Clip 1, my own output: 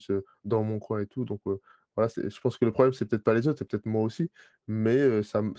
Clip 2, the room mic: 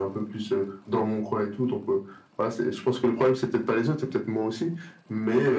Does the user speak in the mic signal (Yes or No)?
No